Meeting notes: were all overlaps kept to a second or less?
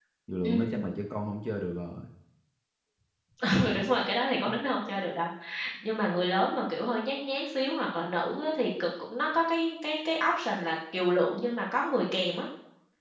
Yes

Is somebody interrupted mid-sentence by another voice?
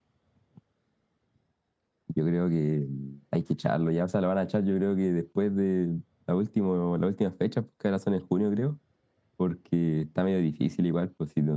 No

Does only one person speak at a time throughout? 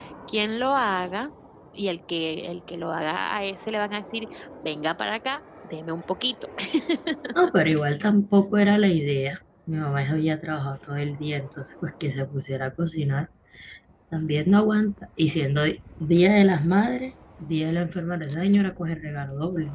Yes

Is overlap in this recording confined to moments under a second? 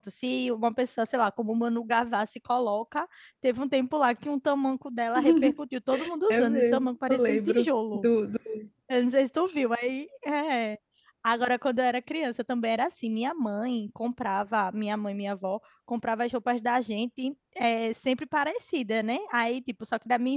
No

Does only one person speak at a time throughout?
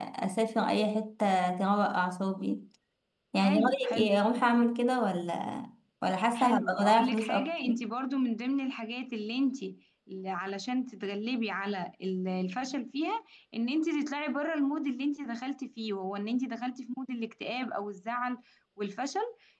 No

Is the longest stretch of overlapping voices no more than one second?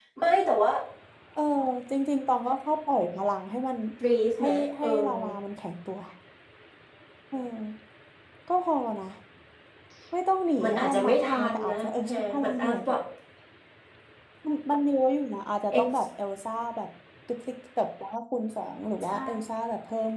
No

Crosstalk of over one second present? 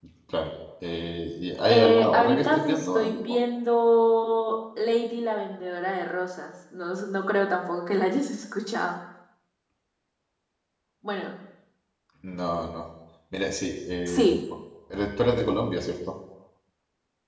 Yes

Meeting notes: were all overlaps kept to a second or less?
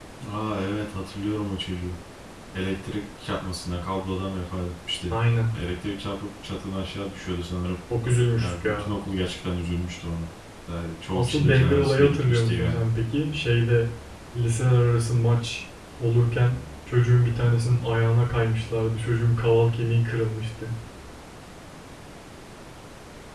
No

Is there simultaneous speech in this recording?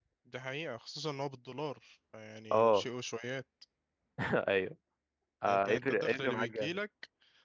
Yes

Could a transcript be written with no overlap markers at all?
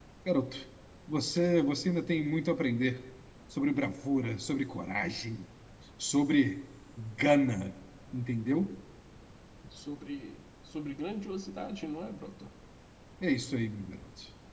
Yes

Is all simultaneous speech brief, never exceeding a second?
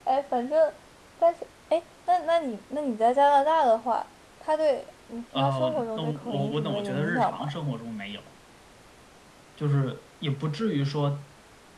No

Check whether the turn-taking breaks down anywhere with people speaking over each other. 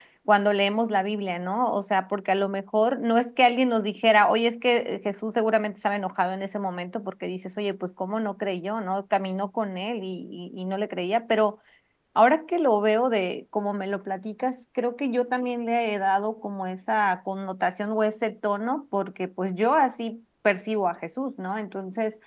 No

